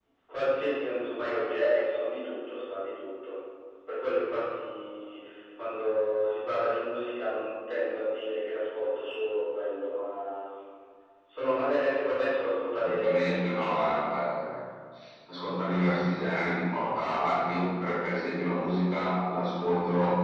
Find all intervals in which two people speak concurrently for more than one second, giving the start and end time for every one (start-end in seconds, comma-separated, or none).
12.8-14.1